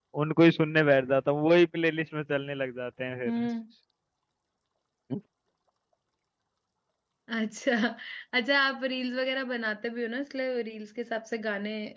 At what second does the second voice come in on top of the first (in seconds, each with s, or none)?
none